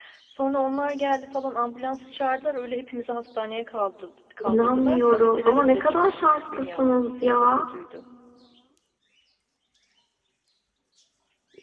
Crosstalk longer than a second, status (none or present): present